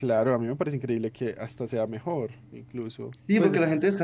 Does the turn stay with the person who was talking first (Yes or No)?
No